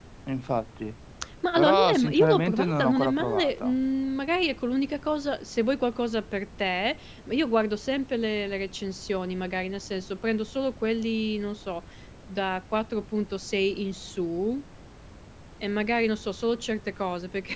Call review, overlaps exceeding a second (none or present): present